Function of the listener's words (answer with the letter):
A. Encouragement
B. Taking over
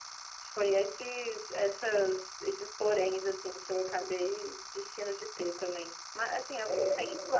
A